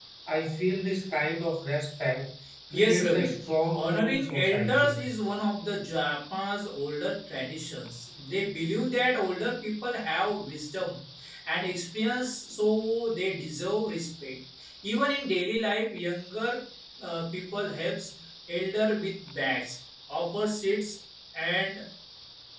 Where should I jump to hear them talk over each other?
2.7 s

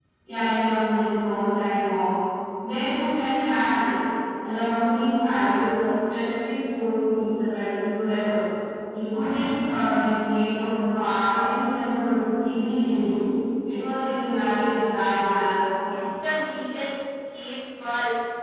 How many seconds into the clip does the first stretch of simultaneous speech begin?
none

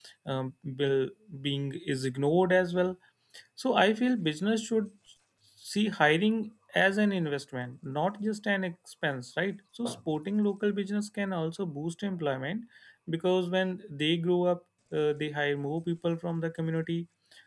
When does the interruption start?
none

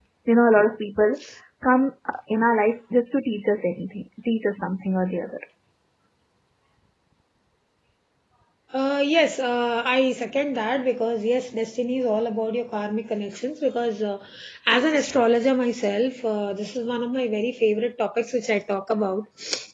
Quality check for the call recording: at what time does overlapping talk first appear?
none

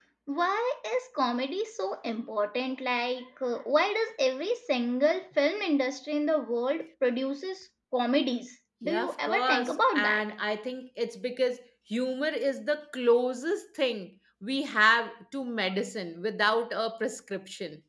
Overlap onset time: 8.8 s

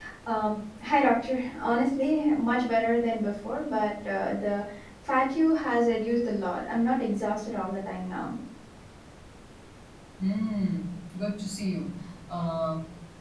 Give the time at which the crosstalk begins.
none

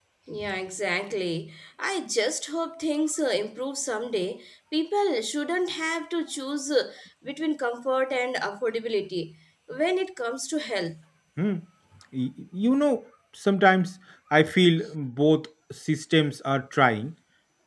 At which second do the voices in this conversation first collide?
none

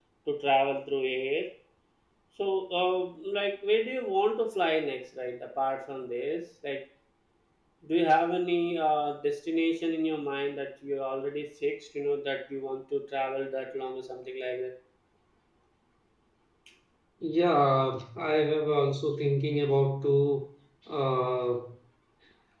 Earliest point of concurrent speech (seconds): none

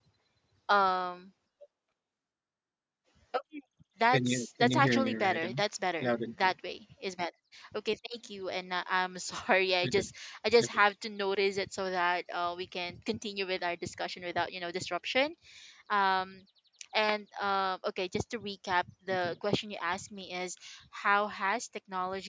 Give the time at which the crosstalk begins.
4.1 s

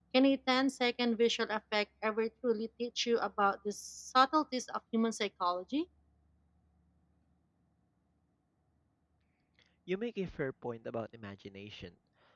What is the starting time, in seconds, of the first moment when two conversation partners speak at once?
none

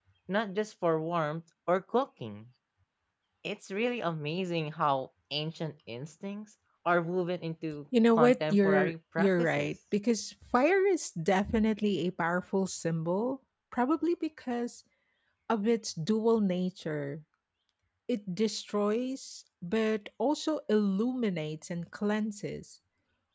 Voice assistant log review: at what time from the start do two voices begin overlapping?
7.9 s

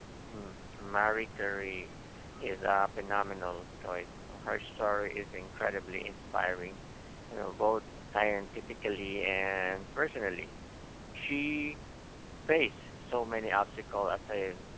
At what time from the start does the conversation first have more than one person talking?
none

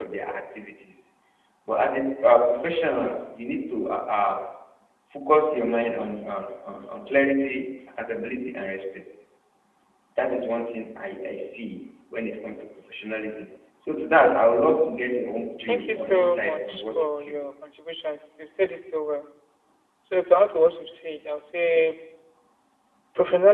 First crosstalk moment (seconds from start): 15.7 s

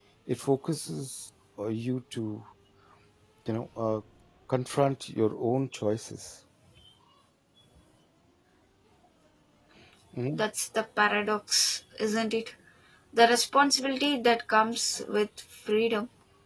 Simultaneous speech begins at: none

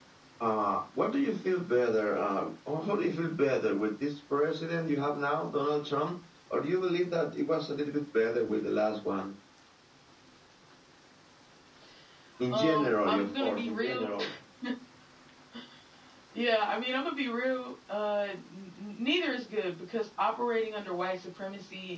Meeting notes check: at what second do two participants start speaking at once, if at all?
12.5 s

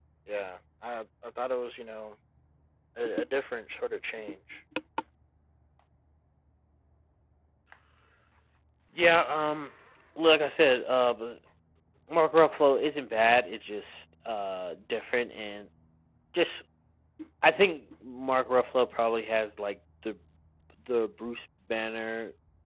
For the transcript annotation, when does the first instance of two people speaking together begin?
none

